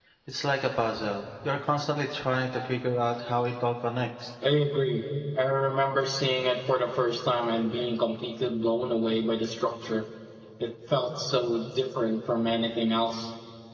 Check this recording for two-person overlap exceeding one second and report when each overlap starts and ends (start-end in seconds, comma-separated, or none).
none